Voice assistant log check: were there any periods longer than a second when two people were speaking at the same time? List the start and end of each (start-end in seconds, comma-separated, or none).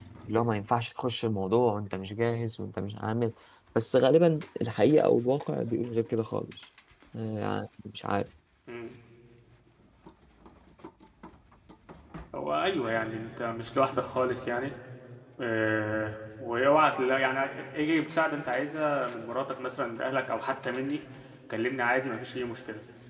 none